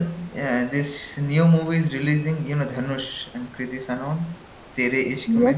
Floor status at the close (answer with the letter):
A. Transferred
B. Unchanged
A